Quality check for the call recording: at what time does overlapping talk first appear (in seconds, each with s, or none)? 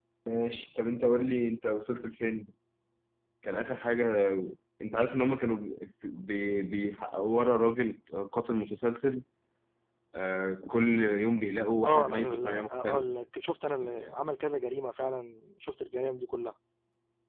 11.8 s